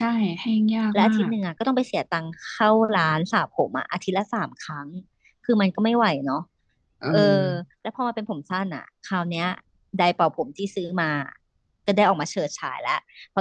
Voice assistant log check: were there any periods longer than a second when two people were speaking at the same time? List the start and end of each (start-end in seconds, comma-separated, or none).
none